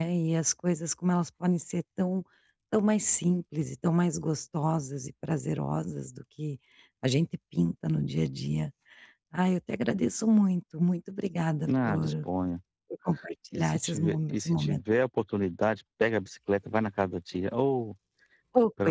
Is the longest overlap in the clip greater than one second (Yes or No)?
Yes